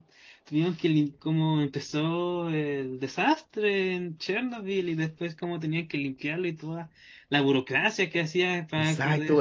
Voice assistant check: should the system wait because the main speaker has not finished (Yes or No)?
No